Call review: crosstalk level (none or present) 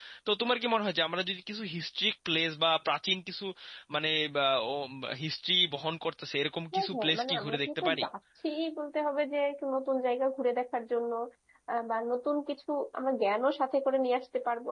present